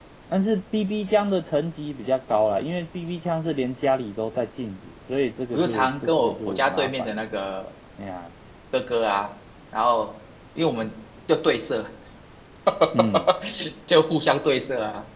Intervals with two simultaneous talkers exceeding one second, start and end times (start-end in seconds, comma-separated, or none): 5.5-7.2